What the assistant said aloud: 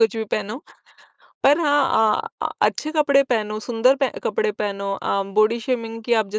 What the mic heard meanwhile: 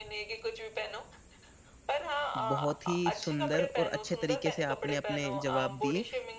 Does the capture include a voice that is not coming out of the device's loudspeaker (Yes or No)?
Yes